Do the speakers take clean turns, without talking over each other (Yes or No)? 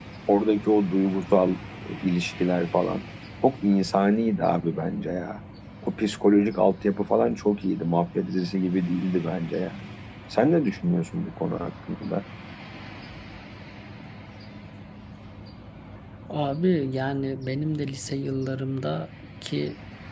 Yes